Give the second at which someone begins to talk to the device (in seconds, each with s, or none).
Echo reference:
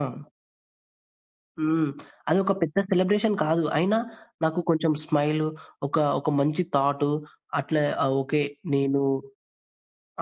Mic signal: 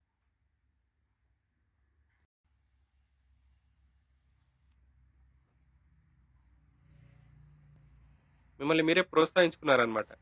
8.6 s